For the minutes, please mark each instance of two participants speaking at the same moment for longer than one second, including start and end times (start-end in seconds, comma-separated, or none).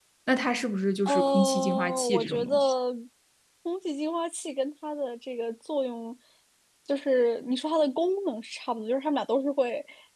1.1-2.7